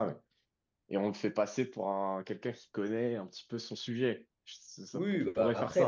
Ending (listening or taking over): taking over